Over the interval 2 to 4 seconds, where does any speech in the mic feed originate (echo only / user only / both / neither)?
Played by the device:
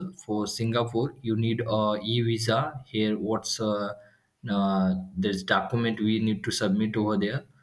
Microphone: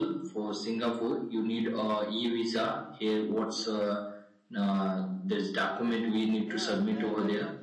echo only